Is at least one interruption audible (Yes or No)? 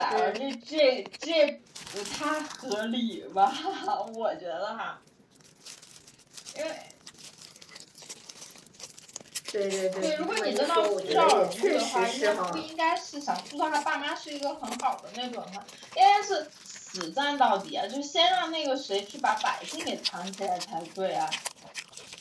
Yes